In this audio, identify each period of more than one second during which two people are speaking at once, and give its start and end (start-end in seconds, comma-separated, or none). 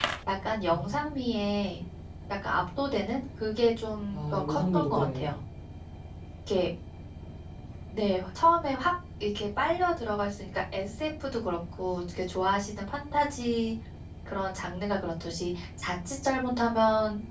4.1-5.4